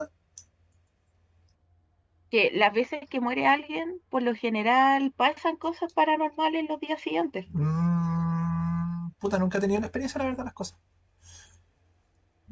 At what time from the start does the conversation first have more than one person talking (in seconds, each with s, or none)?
none